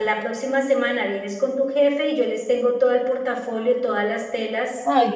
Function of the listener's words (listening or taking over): listening